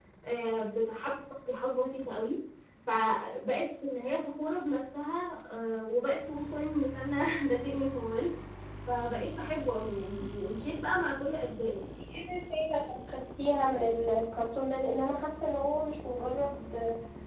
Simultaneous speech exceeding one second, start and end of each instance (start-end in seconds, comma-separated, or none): none